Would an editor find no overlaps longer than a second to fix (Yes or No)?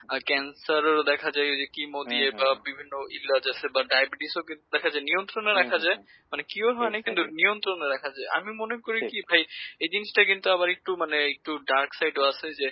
Yes